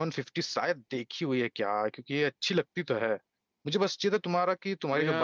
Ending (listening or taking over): listening